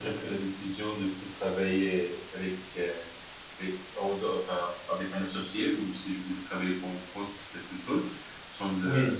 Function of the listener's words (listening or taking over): listening